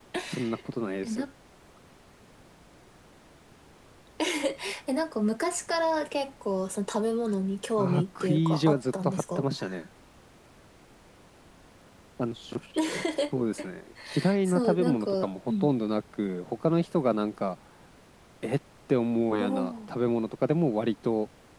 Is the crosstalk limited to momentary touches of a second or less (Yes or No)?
No